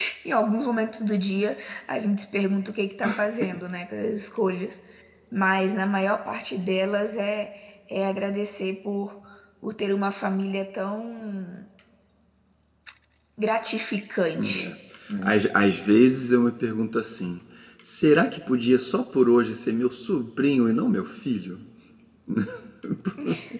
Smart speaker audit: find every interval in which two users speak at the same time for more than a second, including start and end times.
none

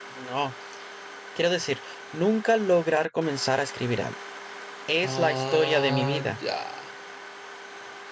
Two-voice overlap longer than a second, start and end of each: 5.0-6.3

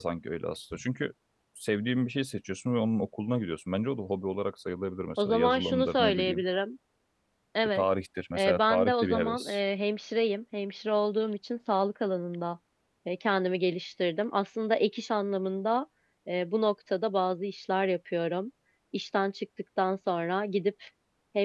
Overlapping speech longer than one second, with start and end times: 5.2-6.4, 8.4-9.6

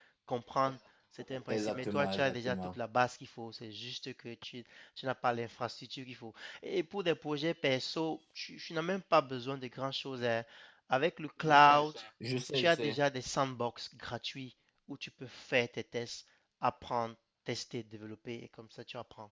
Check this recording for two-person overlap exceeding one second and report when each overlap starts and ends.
1.5-2.8

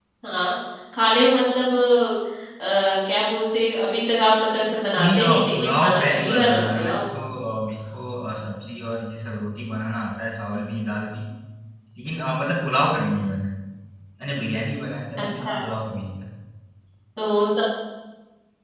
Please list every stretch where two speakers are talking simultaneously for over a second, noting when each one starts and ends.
5.0-7.0

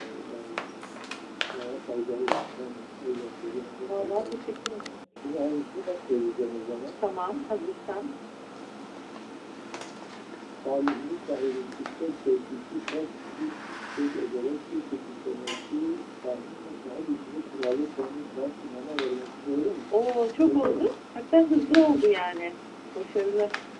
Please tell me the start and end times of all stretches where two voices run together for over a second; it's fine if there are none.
none

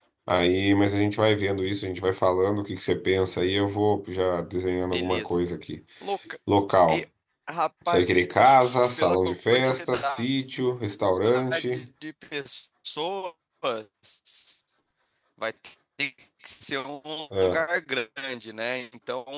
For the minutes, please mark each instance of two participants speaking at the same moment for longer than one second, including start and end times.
7.9-10.2

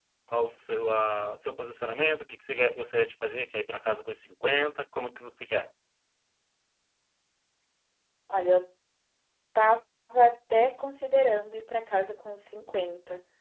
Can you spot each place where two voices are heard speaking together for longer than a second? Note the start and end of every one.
none

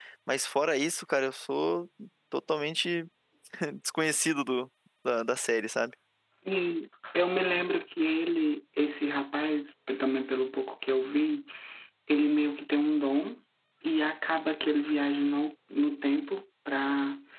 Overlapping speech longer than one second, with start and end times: none

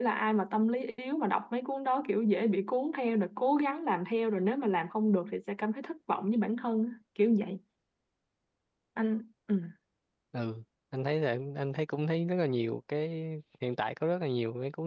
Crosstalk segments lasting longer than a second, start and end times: none

